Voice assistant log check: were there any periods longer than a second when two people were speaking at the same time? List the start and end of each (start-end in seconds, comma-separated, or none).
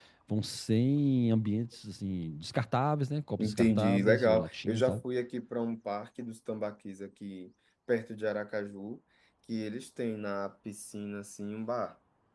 3.4-5.0